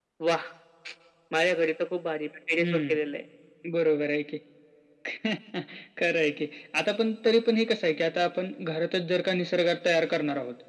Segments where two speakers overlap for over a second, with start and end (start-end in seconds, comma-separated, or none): none